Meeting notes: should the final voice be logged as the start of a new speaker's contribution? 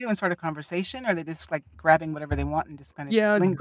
Yes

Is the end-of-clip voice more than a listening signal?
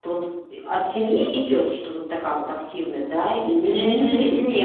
Yes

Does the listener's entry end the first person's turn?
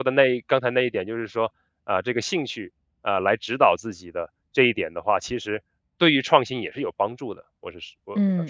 Yes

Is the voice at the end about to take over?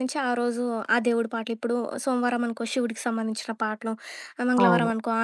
No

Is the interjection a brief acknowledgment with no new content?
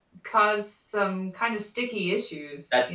No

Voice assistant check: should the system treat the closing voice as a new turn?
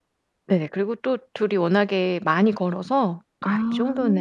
No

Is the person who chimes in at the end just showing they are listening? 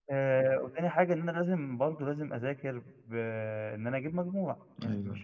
Yes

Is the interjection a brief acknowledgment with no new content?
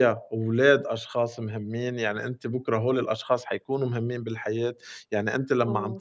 Yes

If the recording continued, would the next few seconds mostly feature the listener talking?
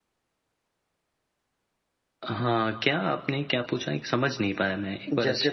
Yes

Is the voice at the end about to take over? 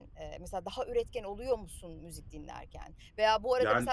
No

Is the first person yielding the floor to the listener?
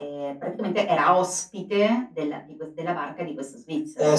Yes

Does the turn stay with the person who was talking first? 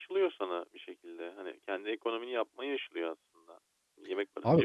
No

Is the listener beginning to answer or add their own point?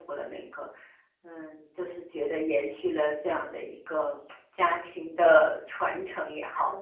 Yes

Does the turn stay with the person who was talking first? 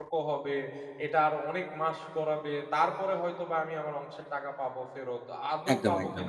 Yes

